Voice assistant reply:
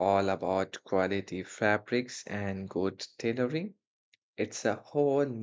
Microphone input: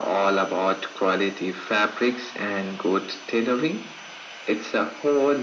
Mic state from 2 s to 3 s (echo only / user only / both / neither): echo only